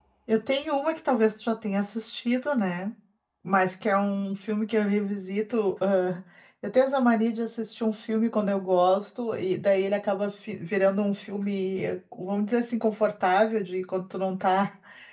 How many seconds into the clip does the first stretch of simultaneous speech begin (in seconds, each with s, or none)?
none